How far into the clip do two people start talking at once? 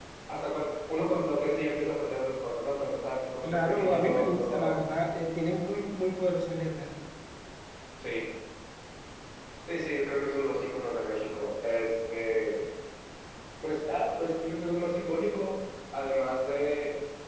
3.4 s

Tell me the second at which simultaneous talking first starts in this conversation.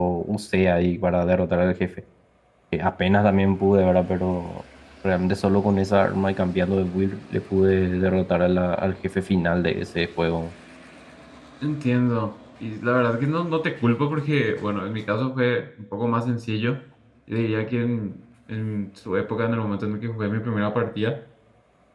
none

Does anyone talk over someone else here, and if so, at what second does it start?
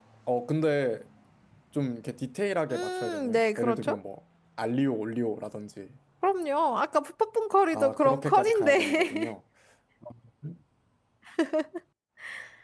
2.7 s

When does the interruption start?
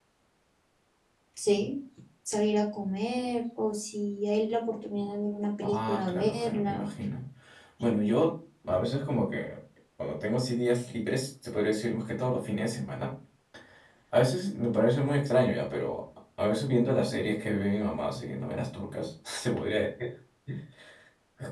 5.6 s

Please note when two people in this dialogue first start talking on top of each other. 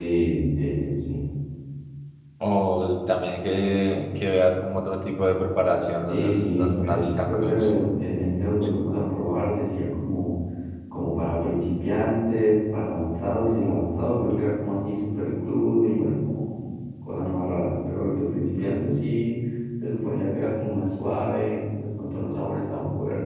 6.1 s

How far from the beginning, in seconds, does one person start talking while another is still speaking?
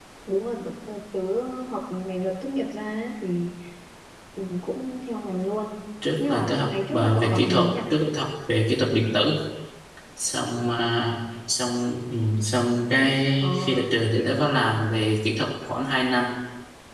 6.2 s

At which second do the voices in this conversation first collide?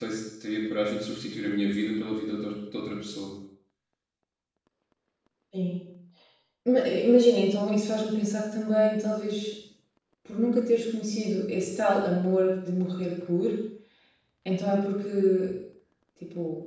none

